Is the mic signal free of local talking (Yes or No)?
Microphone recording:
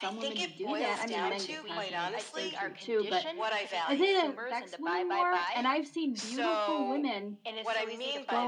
No